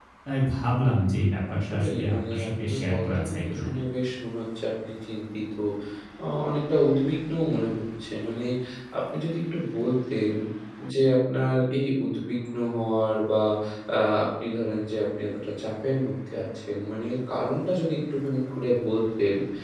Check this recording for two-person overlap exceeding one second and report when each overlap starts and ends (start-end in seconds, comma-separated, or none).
1.6-3.7